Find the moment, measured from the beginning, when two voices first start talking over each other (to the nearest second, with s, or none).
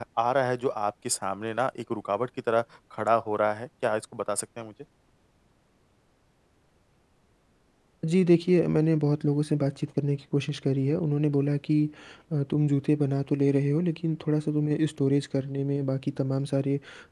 none